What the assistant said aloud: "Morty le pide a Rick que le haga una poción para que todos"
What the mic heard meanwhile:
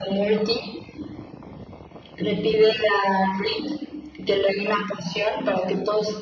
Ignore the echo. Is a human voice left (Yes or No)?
No